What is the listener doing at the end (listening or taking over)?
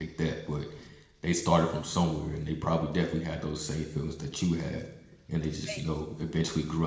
listening